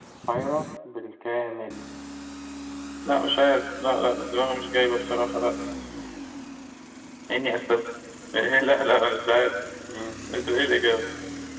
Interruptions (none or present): none